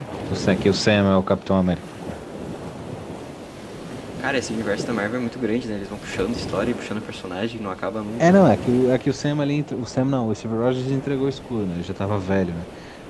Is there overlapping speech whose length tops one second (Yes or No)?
No